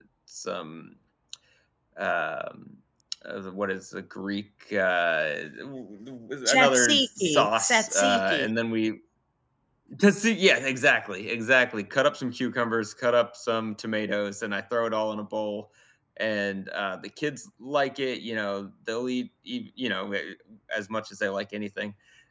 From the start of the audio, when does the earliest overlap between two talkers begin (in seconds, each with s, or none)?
6.5 s